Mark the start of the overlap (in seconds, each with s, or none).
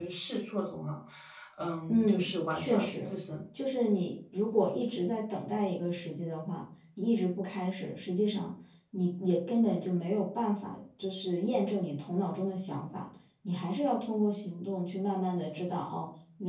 1.9 s